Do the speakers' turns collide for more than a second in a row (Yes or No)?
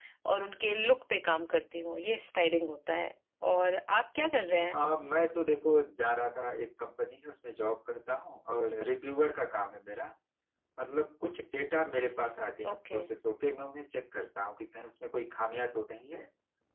No